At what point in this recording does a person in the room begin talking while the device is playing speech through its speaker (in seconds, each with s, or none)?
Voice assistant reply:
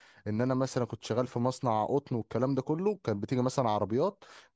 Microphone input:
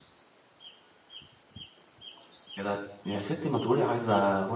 2.3 s